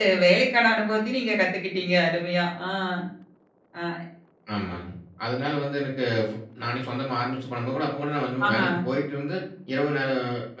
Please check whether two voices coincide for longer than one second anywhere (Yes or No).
No